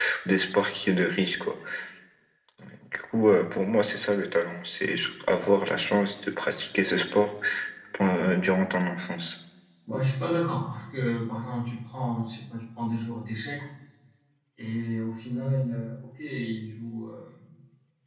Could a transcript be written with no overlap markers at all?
Yes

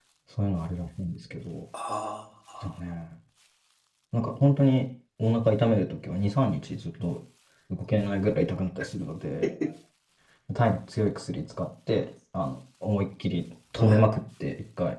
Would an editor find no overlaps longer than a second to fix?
Yes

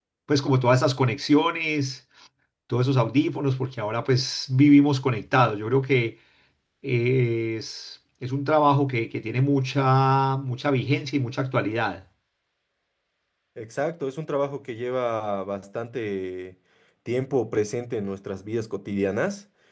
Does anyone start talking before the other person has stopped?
No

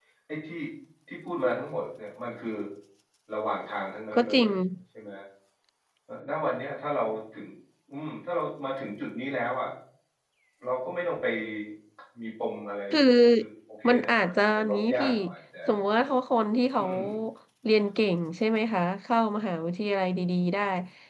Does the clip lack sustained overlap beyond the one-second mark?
No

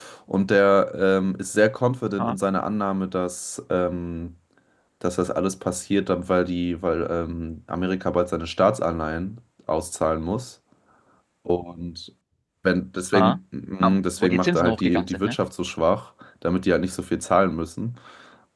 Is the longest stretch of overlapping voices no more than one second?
No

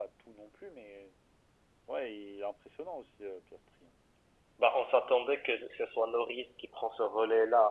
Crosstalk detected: No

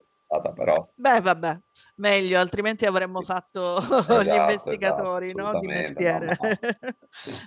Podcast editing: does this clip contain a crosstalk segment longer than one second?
Yes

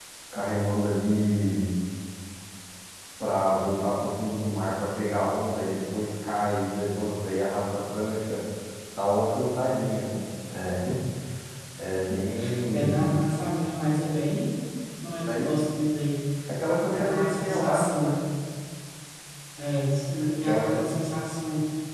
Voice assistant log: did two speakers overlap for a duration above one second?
Yes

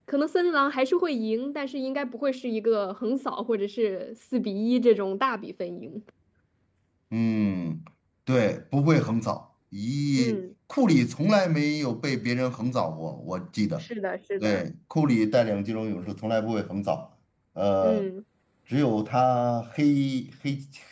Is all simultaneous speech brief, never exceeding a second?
Yes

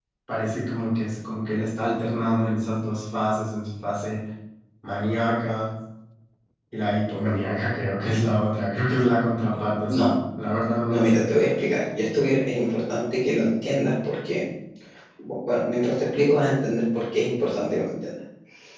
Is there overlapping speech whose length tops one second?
No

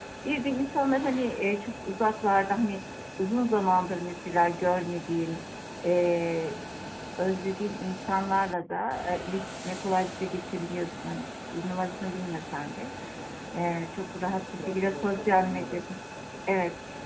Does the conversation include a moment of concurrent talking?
Yes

